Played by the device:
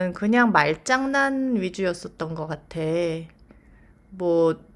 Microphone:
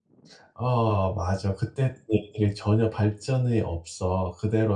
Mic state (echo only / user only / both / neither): user only